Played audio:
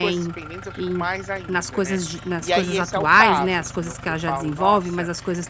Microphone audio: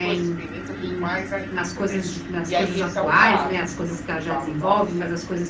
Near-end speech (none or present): none